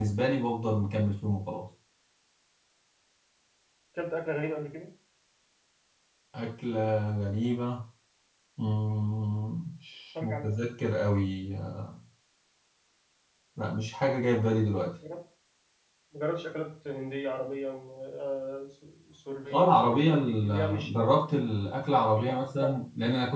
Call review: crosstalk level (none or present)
present